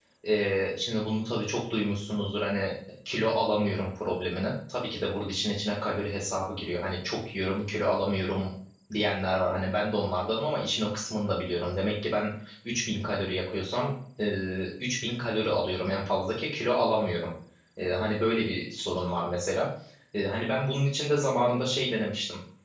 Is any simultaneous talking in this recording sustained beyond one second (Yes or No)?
No